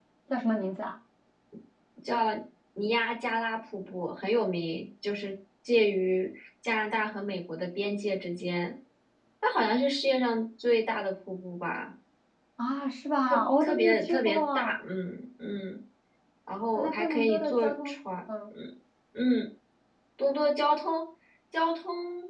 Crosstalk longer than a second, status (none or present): present